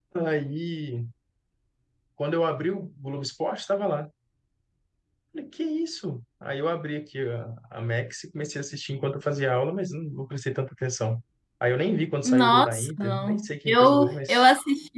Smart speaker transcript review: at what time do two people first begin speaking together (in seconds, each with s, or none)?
12.2 s